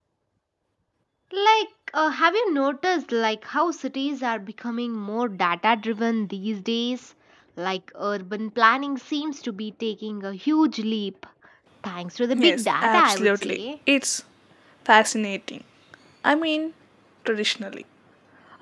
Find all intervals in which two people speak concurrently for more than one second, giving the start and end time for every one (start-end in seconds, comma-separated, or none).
12.3-13.6